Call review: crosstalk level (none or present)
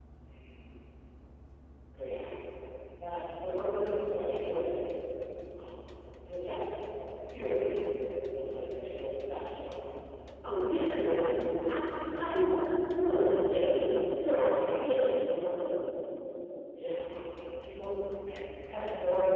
none